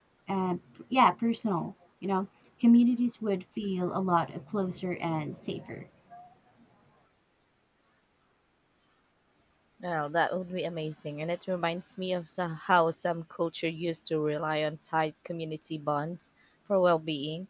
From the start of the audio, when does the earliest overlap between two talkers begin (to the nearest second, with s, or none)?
none